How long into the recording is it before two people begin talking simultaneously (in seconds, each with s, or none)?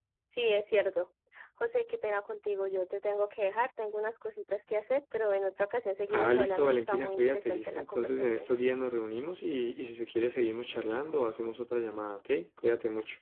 6.1 s